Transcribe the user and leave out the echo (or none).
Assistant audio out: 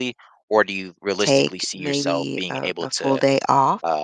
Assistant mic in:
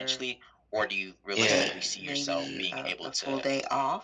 Yeah. mhm,